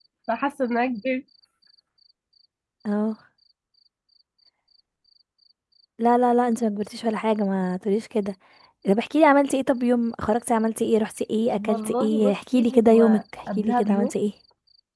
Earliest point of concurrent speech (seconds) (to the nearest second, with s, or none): 12 s